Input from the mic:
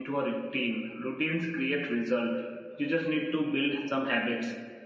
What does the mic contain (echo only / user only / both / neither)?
user only